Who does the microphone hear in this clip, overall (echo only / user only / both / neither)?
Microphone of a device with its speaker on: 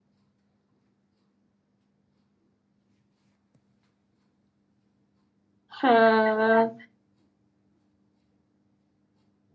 user only